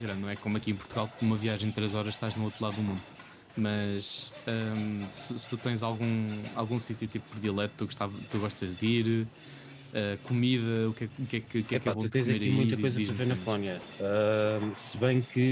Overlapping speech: Yes, from 11.7 s

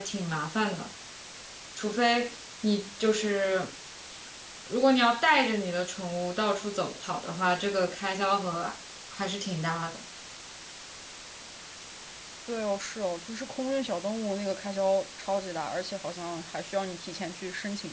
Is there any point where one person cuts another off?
No

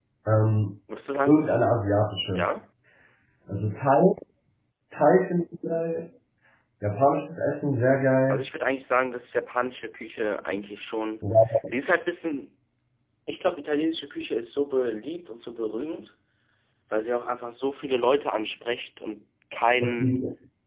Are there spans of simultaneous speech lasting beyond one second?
No

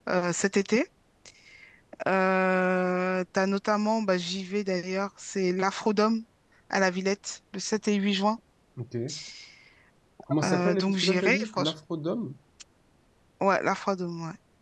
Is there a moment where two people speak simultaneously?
Yes, from 10.4 s

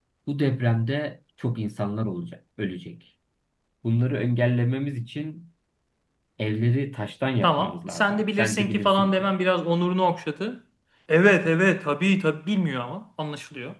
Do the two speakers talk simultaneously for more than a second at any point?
Yes, from 7.4 s

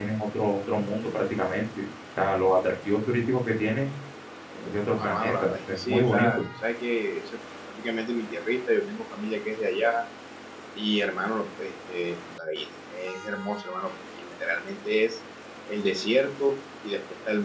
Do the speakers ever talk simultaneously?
Yes, from 5.0 s

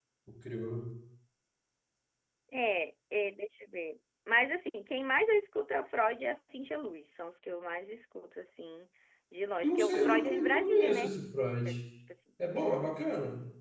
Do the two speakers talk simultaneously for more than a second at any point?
Yes, from 9.6 s

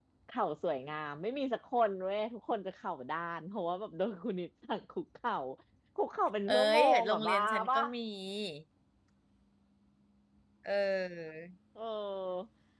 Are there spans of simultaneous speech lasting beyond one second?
Yes, from 6.5 s

